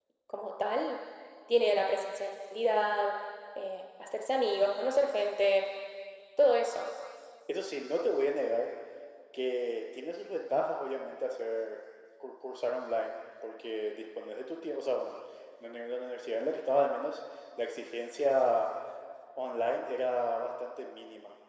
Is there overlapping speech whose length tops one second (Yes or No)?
No